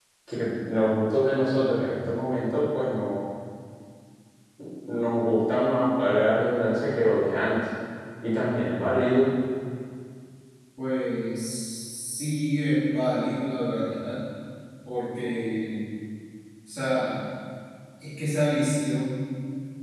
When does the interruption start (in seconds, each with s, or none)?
none